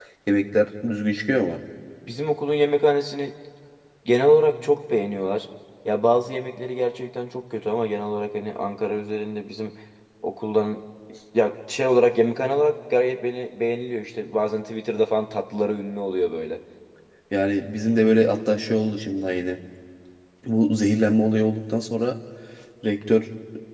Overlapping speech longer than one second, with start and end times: none

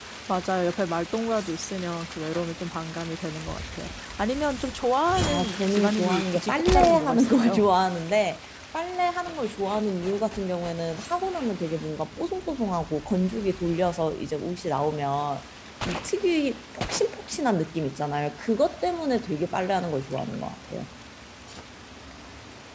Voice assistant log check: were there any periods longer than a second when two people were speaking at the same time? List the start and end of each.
5.3-7.6

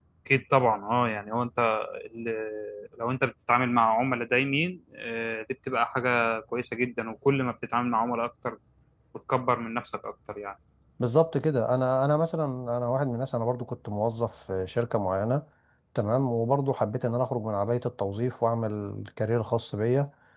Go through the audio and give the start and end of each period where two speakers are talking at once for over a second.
none

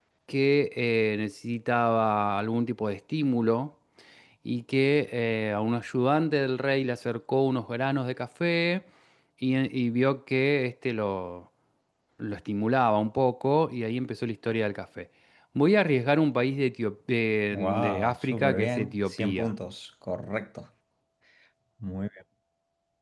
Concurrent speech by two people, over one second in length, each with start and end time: 17.5-19.5

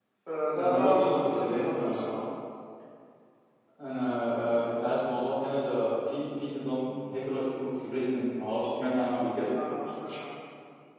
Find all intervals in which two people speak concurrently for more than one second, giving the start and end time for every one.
0.6-2.1

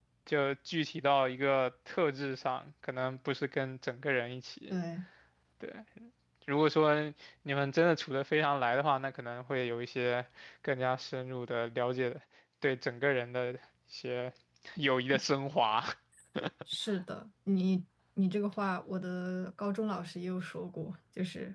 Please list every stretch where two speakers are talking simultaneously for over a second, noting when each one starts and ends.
none

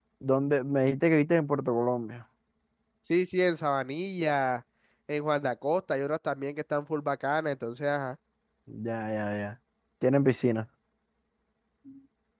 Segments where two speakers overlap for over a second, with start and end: none

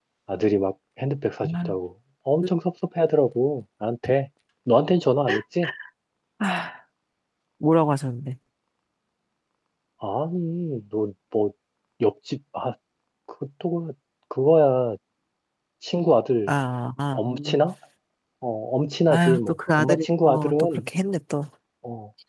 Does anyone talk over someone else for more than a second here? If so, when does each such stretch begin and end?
19.1-20.8

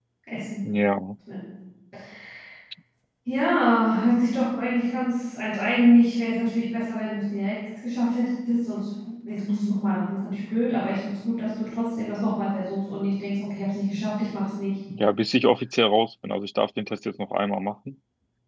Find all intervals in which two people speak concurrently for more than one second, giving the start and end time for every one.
none

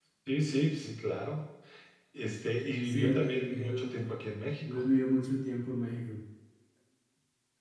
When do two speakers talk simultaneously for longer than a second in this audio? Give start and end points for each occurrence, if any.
2.9-4.1

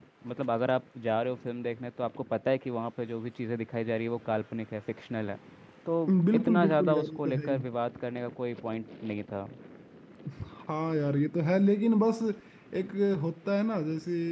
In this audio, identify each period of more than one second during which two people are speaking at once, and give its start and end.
6.3-7.6

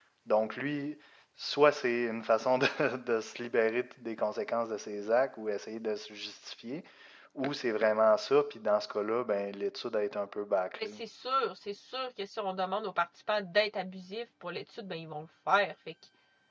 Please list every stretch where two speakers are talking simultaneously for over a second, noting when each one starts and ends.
none

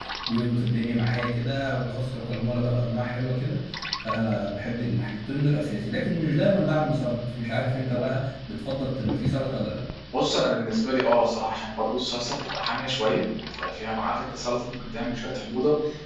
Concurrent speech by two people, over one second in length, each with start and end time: none

